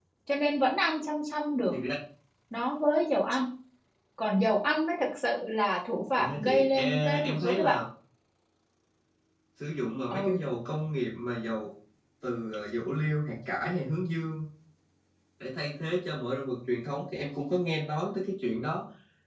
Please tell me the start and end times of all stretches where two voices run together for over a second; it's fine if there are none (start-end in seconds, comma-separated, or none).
6.2-7.8